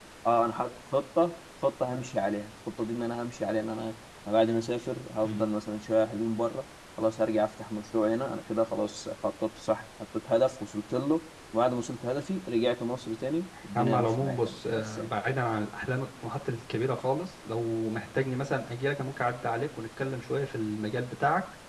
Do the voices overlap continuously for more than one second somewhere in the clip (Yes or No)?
Yes